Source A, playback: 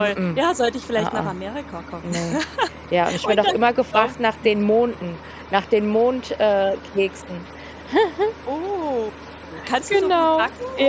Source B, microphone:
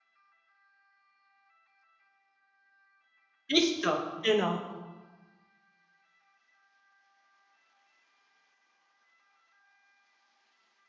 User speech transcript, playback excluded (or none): Dichter, genau.